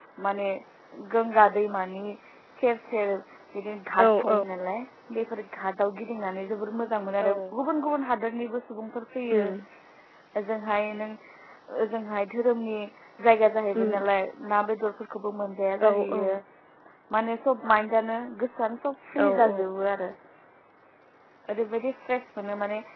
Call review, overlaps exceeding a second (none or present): none